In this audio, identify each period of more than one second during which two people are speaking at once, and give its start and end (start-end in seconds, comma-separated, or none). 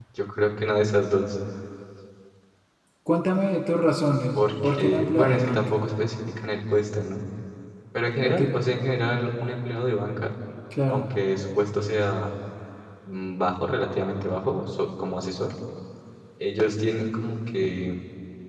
4.3-5.7